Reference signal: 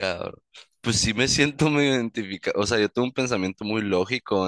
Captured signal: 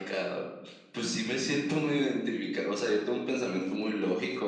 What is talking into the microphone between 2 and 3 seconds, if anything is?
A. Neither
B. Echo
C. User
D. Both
B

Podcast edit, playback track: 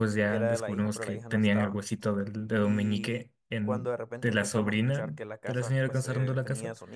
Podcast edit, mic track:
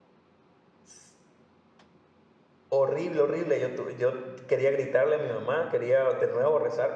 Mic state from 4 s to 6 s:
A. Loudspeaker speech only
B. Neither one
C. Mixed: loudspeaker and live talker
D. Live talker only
D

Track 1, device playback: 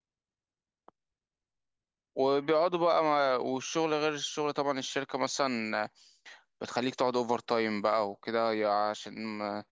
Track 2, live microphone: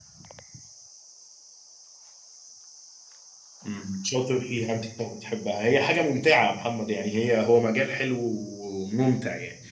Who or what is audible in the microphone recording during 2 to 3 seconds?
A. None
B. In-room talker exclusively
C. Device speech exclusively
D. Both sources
A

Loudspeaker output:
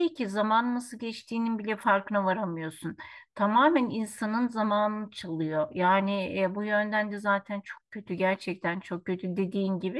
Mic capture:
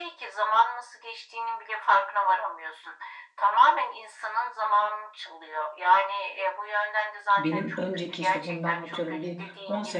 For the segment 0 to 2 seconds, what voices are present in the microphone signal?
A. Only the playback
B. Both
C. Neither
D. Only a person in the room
A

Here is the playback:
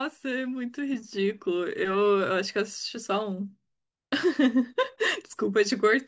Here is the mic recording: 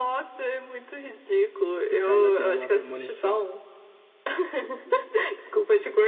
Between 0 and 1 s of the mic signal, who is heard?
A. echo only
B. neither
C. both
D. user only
A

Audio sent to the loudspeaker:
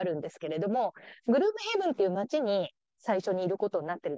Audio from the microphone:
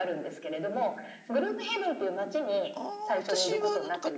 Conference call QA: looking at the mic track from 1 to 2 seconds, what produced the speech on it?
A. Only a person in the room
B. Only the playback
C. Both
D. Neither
B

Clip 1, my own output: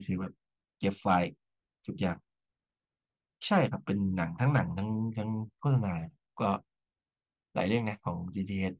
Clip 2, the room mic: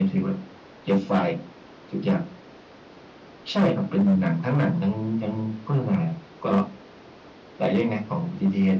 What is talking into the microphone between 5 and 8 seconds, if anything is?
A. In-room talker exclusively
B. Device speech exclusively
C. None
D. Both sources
B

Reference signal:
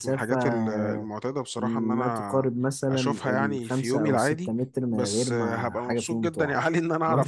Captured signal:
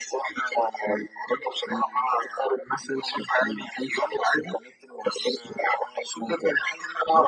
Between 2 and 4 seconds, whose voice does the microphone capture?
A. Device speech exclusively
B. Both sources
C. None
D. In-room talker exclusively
A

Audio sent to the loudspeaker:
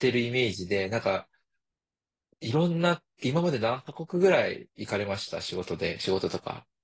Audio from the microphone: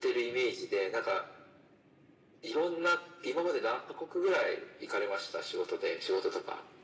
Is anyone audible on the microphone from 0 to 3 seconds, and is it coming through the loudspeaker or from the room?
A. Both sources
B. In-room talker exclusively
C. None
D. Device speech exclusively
D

